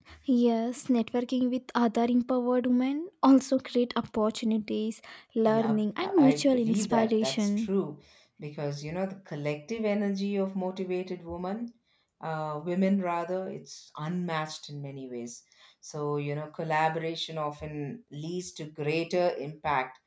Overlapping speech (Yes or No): Yes